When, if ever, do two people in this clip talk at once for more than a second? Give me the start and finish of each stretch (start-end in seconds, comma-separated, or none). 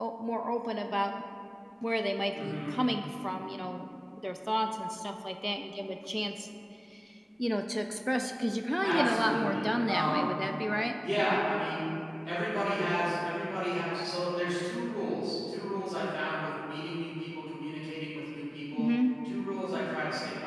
8.8-10.3